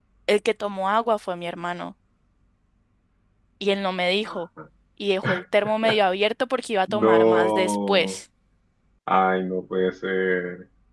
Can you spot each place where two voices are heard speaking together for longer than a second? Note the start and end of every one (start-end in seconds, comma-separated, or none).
6.9-8.2